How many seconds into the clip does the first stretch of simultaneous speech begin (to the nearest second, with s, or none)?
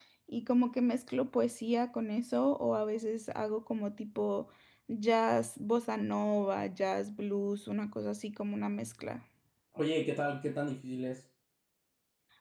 none